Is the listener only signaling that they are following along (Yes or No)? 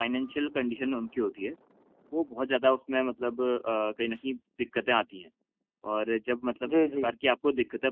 Yes